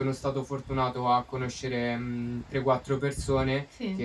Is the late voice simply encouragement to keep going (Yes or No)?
Yes